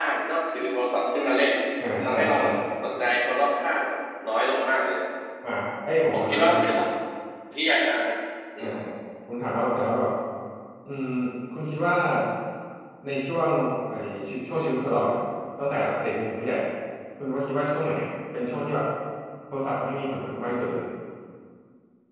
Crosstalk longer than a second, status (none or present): none